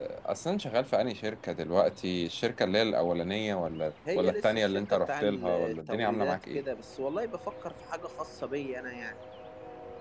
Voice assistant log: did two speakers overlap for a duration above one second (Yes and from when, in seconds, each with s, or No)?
Yes, from 4.0 s